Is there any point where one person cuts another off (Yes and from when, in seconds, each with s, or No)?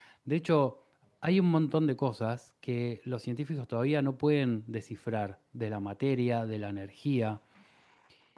No